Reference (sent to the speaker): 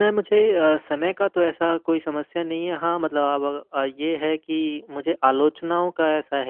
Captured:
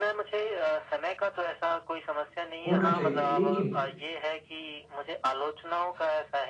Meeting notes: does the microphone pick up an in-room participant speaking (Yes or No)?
Yes